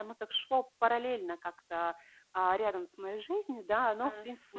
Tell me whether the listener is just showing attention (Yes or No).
No